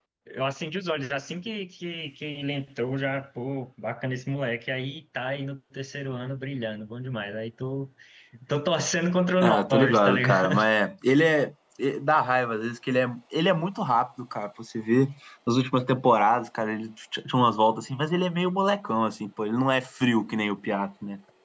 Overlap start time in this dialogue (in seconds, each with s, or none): 9.4 s